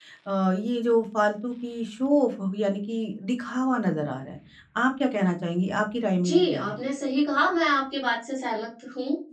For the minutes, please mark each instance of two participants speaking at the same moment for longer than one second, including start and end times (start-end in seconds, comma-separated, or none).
none